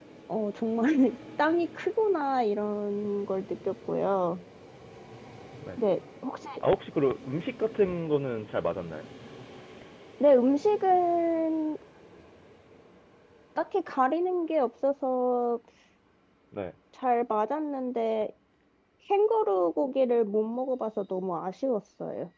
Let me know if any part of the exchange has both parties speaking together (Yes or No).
No